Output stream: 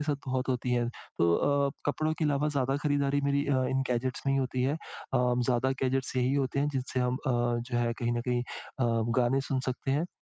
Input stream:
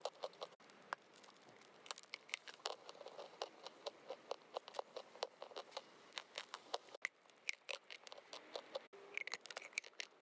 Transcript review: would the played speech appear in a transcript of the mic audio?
No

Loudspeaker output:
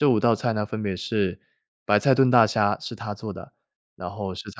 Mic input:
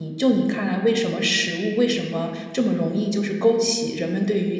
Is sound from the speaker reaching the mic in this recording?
No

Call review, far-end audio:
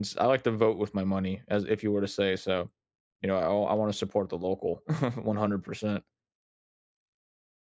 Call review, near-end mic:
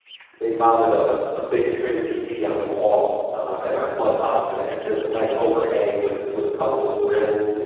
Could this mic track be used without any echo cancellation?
Yes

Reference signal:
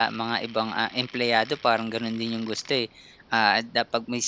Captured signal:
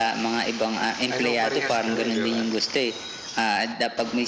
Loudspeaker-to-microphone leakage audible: Yes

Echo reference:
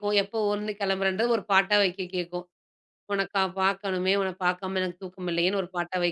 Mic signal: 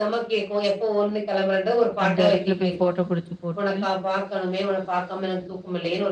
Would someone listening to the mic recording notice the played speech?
Yes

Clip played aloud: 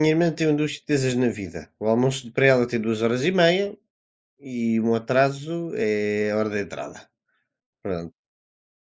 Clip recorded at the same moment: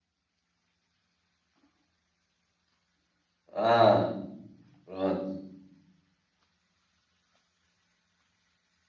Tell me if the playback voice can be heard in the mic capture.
No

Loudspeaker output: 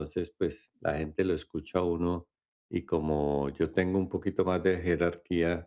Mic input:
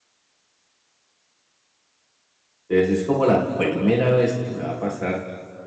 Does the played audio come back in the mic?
No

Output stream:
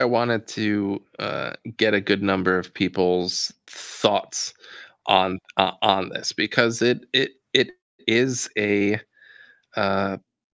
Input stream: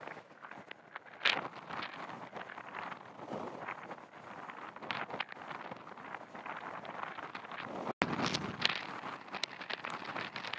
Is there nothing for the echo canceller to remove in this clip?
Yes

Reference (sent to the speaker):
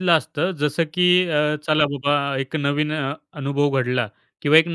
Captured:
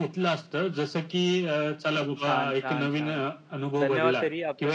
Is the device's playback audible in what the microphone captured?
Yes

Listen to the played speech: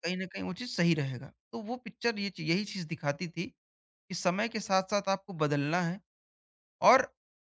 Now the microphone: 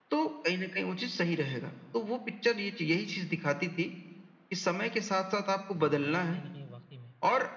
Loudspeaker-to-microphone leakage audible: Yes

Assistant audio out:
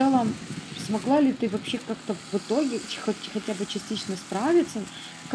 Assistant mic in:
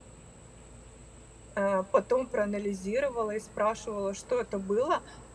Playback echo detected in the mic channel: No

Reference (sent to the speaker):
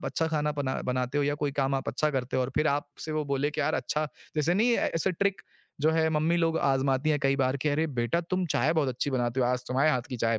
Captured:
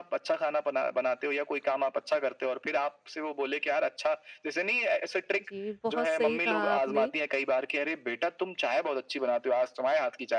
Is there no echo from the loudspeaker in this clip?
No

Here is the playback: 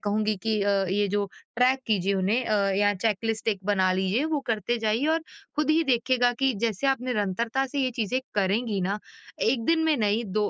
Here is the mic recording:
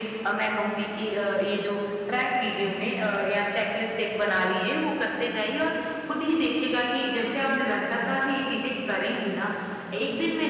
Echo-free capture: No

